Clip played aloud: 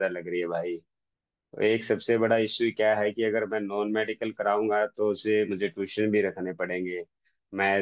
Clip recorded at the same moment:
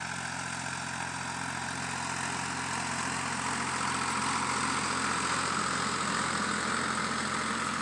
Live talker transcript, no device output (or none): none